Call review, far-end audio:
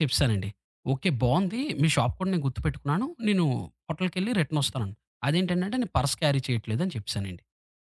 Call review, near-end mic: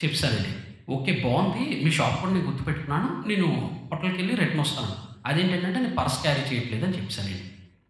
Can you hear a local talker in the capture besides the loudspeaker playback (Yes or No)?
No